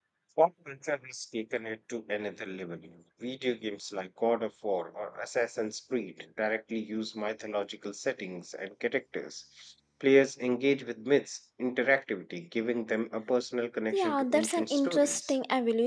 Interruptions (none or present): present